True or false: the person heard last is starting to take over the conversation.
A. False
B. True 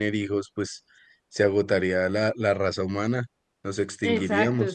B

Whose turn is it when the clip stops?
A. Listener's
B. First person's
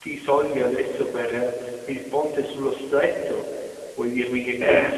B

